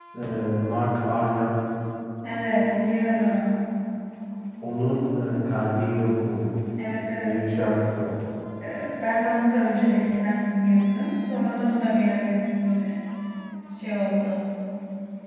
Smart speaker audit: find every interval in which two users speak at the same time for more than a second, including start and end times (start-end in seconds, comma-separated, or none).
none